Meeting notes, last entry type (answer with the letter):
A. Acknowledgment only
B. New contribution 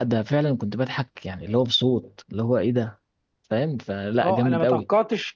B